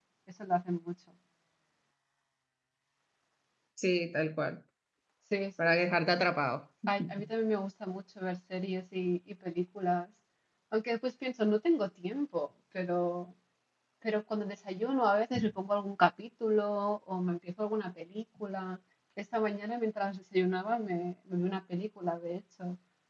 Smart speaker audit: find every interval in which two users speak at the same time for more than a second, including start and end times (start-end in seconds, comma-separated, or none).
none